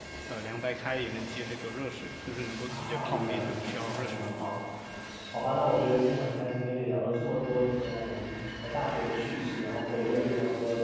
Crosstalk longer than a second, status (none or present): present